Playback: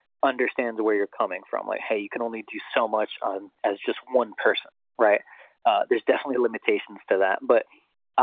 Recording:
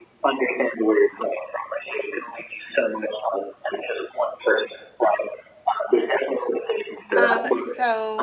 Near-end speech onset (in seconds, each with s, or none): 7.2 s